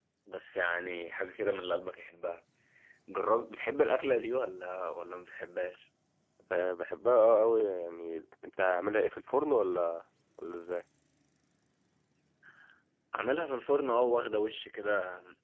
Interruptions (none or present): none